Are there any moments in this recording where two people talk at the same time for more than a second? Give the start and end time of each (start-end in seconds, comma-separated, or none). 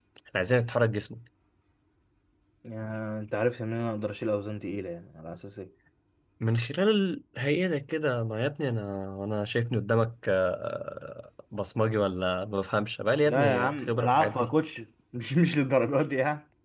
13.2-14.5